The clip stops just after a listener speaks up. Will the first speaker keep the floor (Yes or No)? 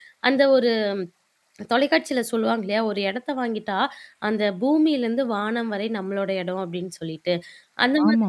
Yes